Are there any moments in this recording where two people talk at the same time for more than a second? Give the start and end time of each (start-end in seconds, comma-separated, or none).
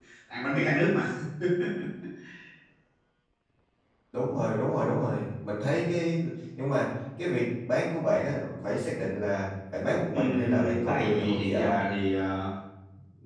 10.1-11.8